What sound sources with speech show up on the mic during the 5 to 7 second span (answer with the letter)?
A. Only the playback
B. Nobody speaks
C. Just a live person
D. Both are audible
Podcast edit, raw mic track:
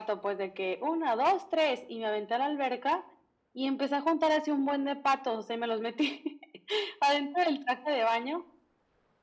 A